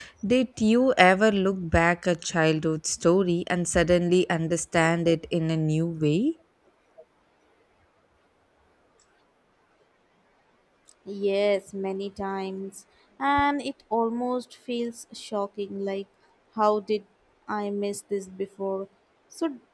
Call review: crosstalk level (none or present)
none